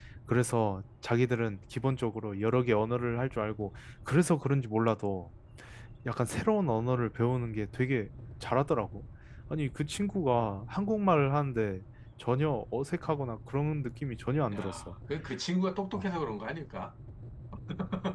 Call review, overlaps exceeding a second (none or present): none